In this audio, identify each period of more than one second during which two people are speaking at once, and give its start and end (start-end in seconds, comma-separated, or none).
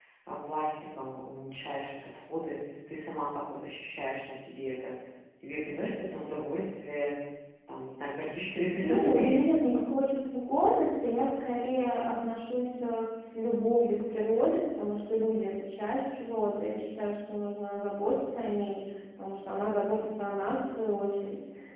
none